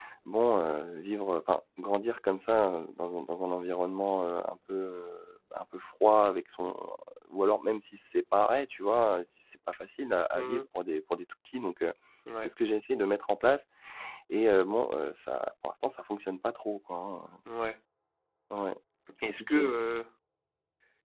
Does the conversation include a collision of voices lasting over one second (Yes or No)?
No